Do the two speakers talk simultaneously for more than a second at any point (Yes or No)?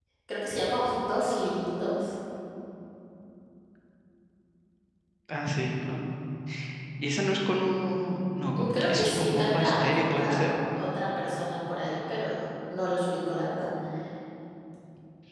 Yes